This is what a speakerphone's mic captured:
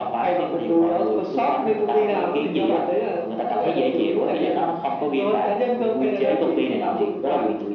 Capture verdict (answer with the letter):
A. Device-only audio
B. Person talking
A